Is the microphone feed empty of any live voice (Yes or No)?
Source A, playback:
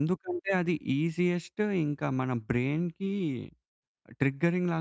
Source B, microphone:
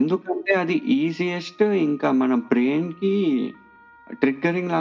Yes